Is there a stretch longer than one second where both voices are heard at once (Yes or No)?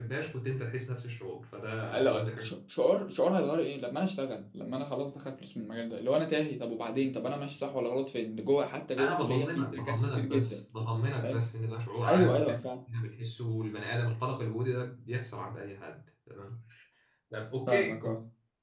Yes